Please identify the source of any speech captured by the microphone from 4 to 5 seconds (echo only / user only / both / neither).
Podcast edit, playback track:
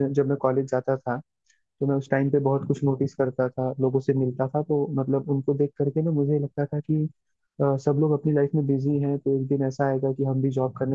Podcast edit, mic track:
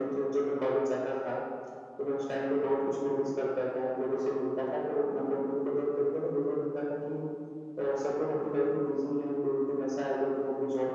echo only